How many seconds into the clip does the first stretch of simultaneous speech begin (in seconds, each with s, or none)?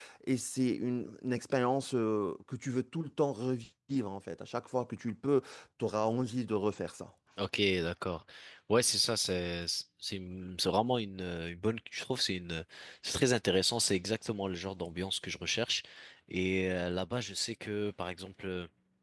none